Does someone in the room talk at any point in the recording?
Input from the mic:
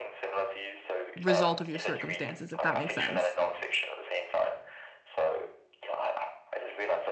Yes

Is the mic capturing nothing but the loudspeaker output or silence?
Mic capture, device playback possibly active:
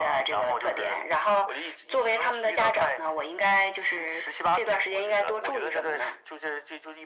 Yes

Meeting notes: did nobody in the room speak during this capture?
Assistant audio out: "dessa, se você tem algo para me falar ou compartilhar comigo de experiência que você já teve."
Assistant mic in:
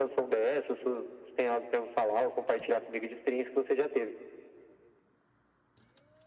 Yes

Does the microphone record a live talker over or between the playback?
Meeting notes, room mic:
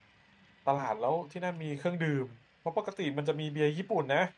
Yes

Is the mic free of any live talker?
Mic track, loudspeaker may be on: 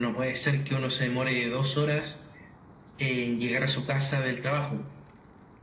Yes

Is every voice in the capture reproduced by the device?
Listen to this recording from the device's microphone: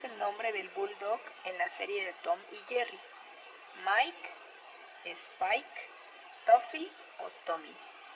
Yes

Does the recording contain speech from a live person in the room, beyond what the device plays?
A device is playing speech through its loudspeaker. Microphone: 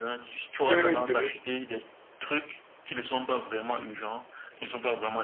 Yes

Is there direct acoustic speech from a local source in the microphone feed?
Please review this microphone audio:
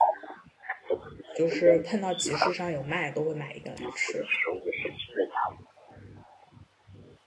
Yes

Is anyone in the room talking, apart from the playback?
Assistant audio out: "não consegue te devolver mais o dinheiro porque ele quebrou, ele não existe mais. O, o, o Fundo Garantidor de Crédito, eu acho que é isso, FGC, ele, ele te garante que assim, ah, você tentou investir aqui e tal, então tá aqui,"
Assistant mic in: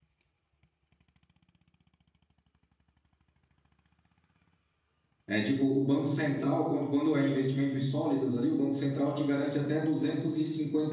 Yes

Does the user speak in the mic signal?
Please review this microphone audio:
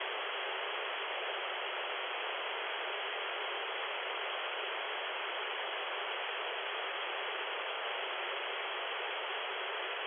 No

